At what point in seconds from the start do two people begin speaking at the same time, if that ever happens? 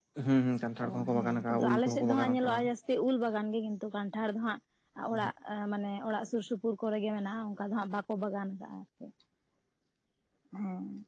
0.9 s

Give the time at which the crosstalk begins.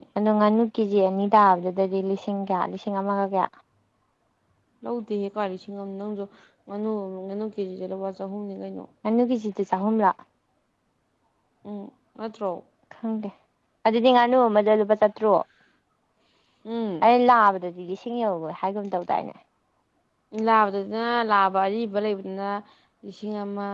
none

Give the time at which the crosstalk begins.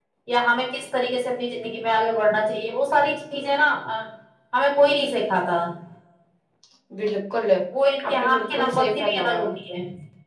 8.1 s

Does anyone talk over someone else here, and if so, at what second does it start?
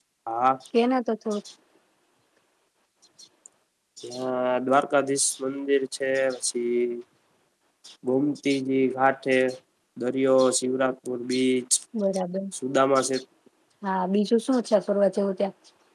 none

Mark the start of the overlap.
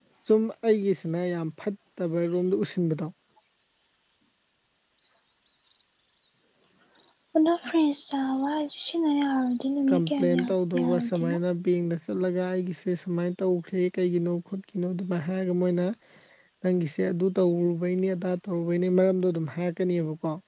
9.9 s

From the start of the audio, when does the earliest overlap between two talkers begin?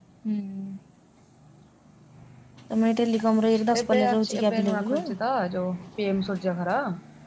3.7 s

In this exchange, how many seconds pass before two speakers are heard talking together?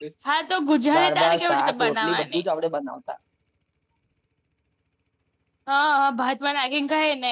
1.0 s

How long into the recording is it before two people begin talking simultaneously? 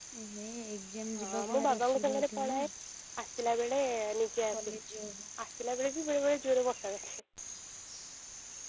1.2 s

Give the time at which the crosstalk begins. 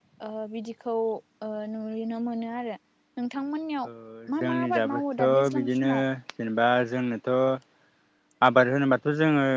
4.4 s

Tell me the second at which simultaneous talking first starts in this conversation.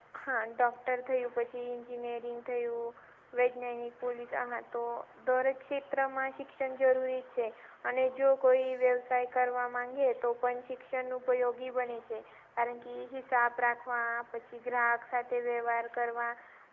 none

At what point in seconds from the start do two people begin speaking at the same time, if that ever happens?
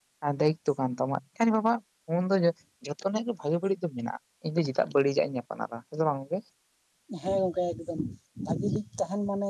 none

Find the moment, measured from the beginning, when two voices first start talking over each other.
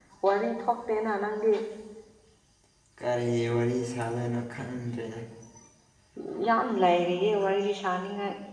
none

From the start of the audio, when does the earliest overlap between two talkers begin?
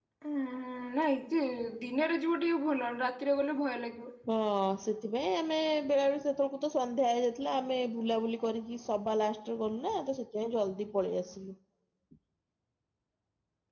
none

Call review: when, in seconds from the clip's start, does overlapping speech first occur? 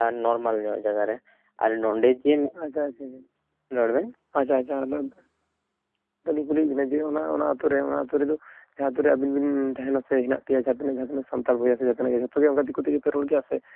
none

